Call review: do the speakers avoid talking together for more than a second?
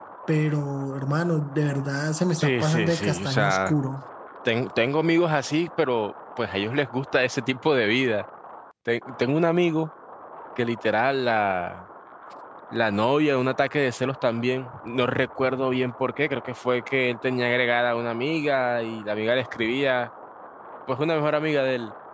No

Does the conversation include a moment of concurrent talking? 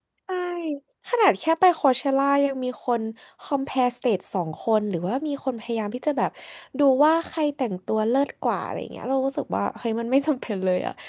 No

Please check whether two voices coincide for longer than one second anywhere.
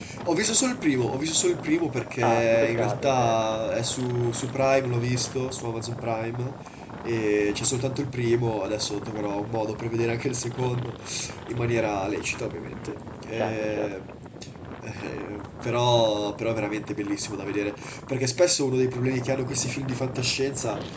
Yes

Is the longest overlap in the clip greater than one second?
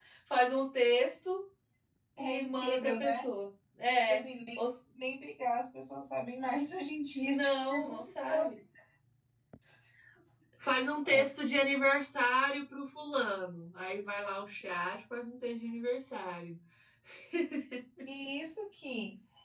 Yes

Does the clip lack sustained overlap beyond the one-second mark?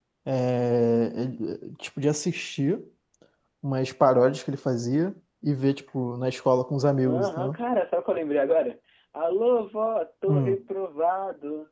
Yes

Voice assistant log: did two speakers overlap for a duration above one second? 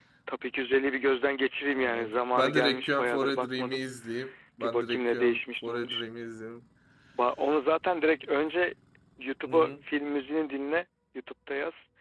Yes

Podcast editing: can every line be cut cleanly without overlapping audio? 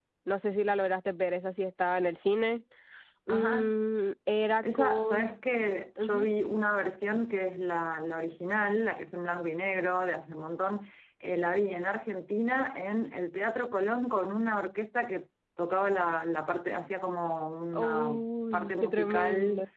No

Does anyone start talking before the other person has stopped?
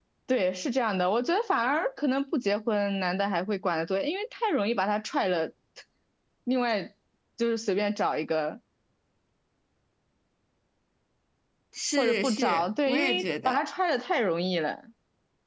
Yes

